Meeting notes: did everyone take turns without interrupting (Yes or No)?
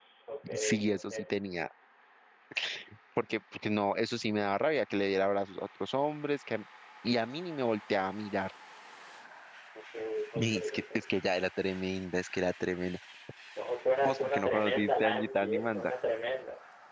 No